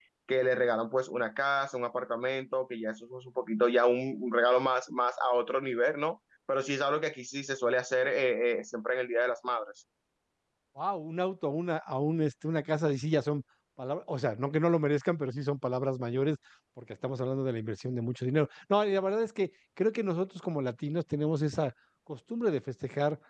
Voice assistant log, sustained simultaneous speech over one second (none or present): none